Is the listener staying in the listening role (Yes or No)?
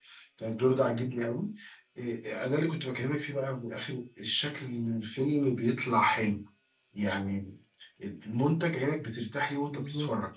Yes